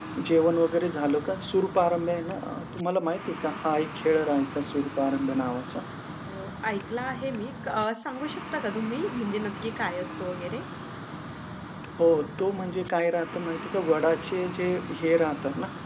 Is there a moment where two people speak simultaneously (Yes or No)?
No